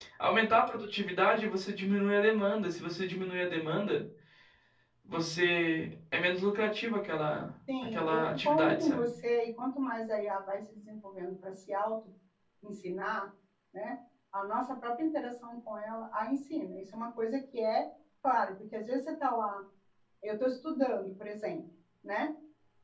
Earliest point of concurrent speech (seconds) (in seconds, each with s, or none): 7.7 s